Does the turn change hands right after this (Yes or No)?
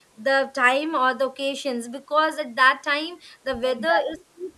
No